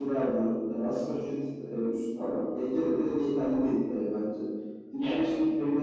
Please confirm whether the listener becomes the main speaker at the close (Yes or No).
No